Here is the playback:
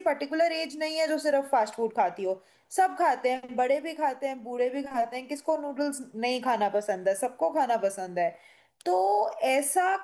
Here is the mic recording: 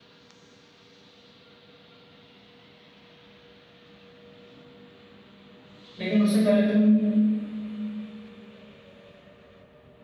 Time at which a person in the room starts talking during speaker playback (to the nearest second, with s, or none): 6 s